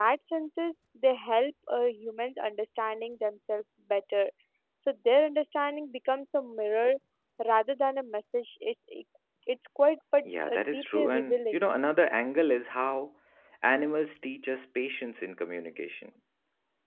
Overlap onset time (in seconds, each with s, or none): 10.2 s